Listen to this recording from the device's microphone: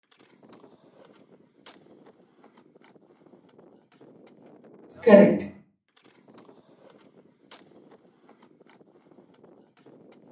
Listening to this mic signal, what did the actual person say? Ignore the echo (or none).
Correct.